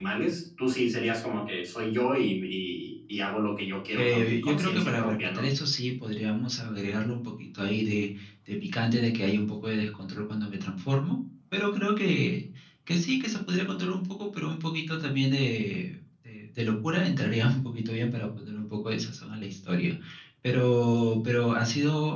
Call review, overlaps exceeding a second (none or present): present